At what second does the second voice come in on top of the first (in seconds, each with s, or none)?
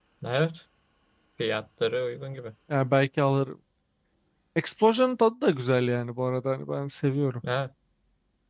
none